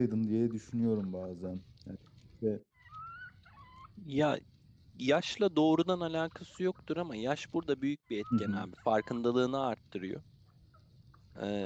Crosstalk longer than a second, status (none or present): none